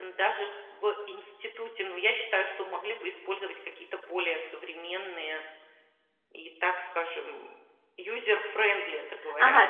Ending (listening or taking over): taking over